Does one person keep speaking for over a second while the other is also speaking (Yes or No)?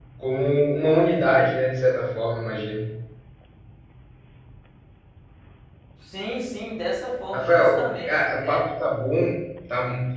Yes